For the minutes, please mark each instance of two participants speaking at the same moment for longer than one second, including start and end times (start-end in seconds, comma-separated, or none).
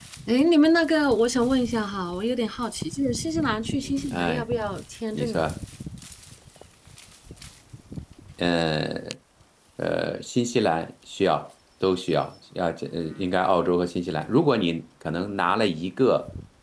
none